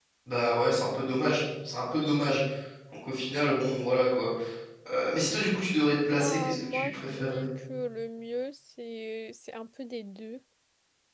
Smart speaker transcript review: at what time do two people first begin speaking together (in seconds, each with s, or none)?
6.1 s